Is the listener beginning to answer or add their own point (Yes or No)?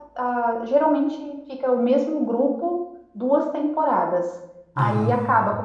No